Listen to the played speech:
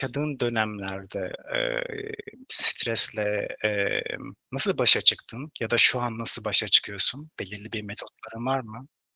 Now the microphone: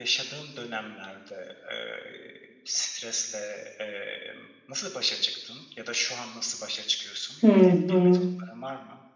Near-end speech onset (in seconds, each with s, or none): 7.4 s